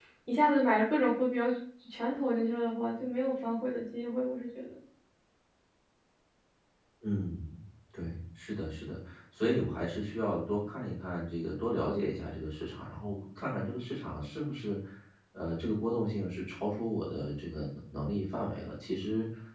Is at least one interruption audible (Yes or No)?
No